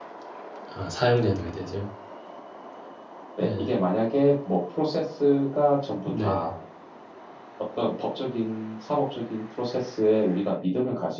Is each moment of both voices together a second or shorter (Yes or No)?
Yes